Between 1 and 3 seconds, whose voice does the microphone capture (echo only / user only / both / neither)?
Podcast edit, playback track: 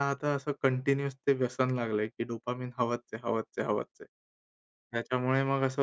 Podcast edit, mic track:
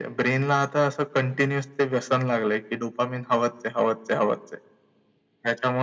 echo only